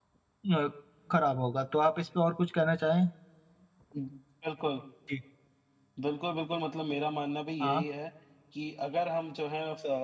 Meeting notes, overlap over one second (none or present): none